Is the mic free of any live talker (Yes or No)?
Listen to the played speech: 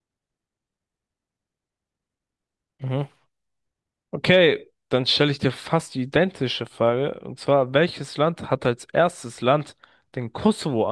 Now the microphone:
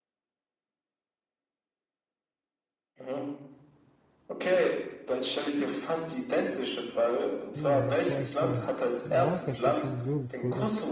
No